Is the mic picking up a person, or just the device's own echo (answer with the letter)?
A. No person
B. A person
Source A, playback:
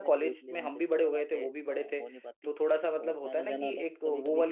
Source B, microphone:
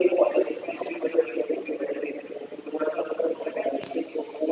A